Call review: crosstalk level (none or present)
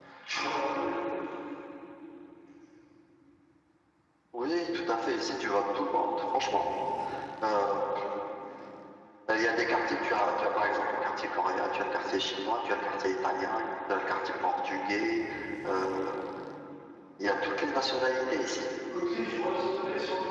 none